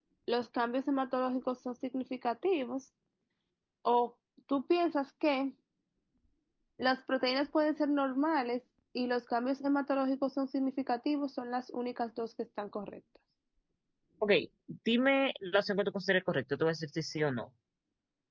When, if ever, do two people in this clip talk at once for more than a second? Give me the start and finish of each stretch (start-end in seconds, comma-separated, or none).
none